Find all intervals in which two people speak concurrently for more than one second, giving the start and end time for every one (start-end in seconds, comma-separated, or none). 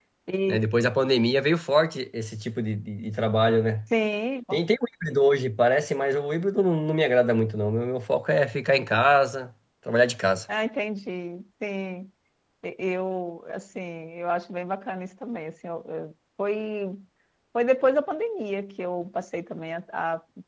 none